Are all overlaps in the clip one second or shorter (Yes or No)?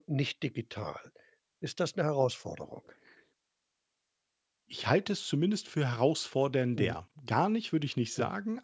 Yes